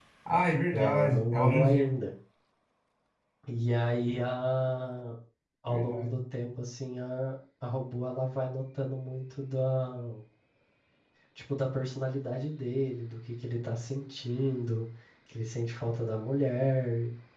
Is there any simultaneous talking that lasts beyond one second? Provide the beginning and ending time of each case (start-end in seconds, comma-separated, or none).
0.7-1.9